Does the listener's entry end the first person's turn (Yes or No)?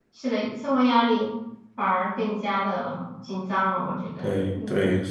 Yes